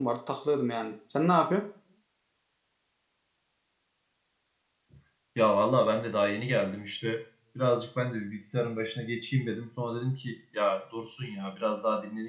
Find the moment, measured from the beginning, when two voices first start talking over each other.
none

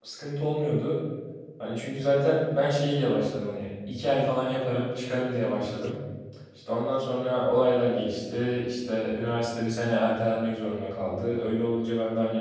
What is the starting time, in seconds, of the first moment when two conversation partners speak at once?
none

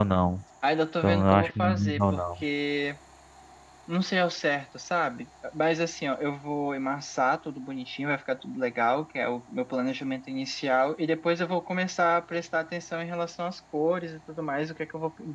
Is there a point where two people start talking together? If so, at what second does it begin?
1.0 s

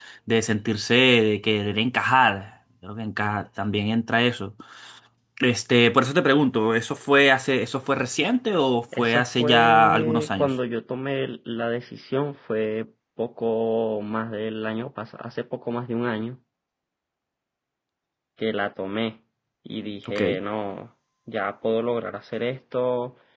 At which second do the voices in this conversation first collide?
9.0 s

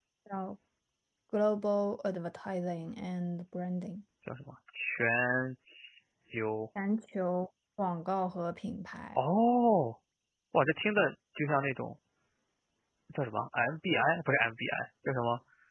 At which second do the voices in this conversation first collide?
none

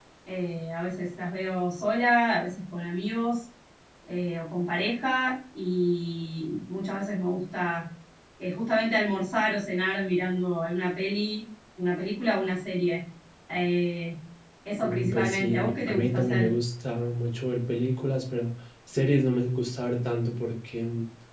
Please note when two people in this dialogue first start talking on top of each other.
14.8 s

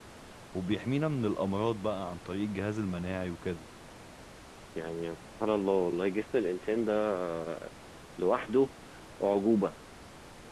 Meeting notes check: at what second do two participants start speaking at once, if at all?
none

